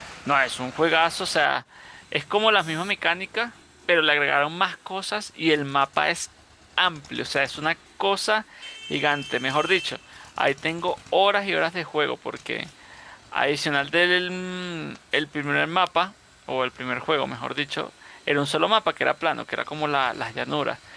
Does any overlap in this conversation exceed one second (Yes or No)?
No